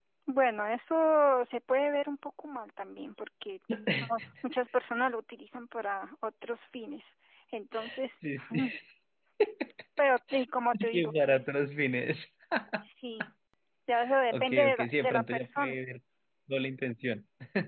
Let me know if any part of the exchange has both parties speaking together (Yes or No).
Yes